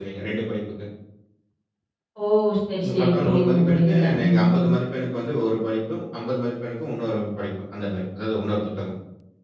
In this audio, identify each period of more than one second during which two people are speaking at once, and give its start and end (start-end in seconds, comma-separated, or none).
2.8-4.8